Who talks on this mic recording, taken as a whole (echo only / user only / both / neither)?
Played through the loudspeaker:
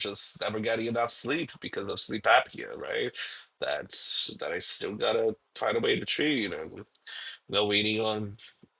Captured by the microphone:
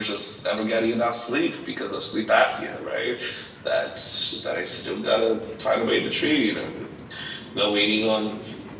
echo only